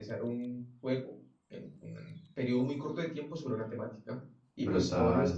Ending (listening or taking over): listening